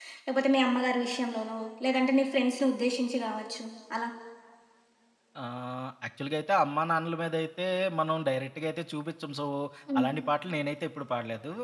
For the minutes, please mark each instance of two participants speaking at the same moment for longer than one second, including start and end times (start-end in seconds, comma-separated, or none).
none